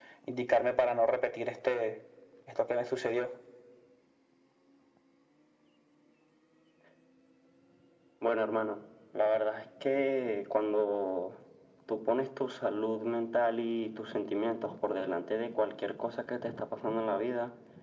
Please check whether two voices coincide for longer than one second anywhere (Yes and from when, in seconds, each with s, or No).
No